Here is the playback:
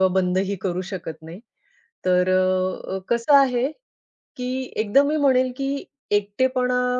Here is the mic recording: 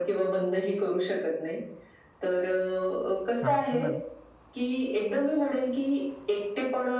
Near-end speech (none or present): present